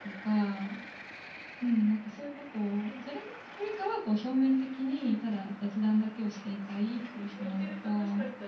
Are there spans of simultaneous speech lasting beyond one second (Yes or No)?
Yes